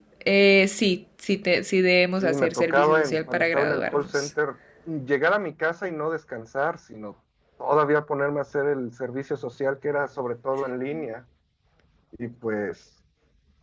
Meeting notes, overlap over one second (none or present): present